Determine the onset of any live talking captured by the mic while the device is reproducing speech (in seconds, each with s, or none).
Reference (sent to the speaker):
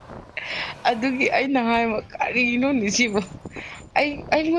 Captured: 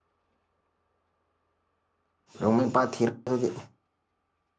2.4 s